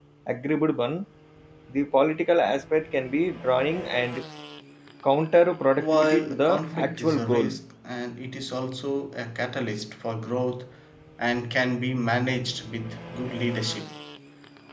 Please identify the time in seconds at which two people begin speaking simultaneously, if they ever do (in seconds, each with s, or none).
5.8 s